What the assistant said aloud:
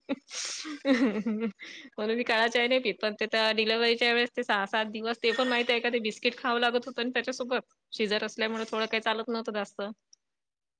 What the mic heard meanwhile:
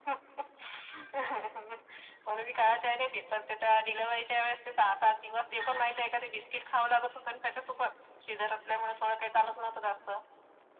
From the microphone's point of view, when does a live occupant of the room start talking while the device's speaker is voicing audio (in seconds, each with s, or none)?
none